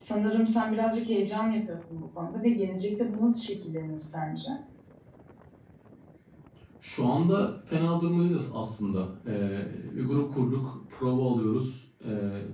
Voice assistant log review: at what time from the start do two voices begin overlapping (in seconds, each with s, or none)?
none